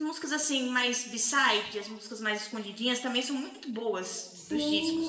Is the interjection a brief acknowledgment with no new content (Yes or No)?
No